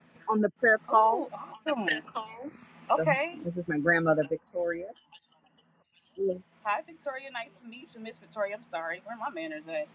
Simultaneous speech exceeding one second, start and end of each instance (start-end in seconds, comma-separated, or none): none